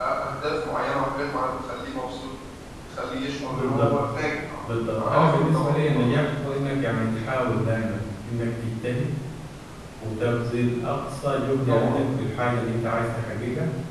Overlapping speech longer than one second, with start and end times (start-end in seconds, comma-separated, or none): 4.6-6.2